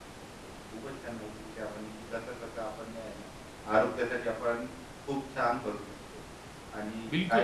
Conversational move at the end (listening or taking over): taking over